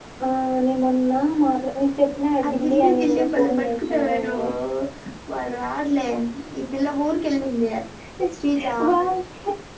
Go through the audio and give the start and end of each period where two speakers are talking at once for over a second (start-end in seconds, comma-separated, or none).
2.4-4.4